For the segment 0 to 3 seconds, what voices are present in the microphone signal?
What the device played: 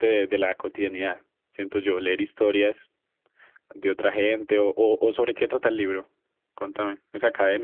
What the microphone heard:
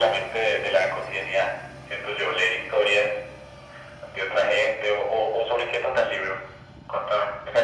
echo only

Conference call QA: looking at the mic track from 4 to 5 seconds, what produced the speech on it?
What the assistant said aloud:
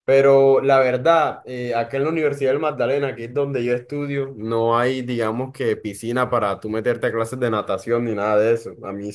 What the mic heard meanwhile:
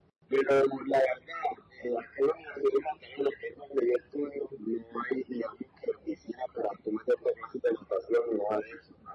echo only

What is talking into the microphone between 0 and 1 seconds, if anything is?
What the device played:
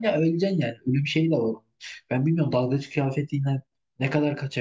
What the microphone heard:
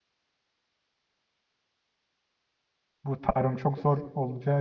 neither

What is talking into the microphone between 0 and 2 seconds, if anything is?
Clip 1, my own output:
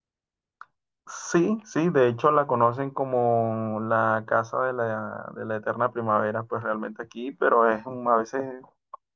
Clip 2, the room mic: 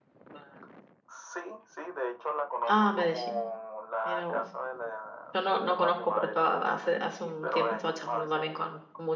echo only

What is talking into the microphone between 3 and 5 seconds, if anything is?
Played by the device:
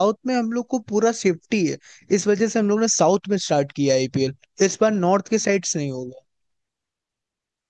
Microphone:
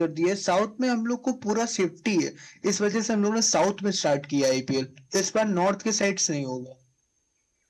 echo only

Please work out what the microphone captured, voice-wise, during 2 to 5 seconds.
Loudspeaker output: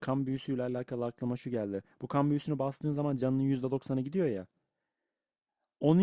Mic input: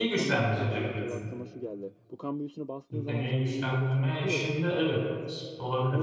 both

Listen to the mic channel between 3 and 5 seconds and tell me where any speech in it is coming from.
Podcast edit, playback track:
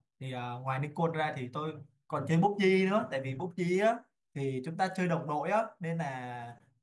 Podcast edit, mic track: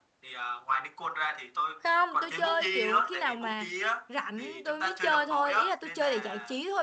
both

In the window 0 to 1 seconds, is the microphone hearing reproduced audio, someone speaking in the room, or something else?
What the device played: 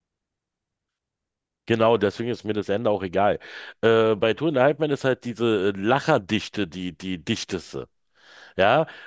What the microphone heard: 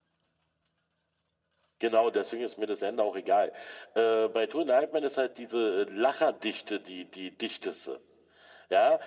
neither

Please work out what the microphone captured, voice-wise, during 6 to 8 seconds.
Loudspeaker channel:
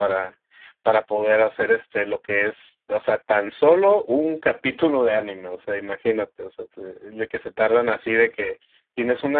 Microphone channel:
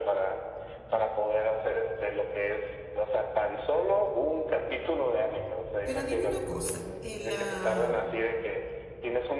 both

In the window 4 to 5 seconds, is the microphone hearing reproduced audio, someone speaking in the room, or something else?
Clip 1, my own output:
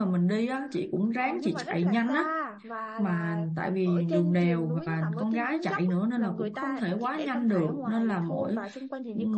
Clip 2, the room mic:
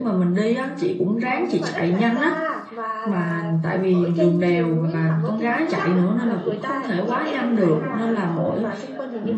echo only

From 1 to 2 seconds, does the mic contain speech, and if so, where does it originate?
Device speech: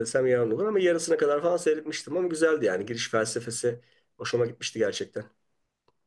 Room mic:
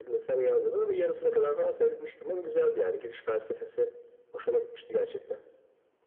echo only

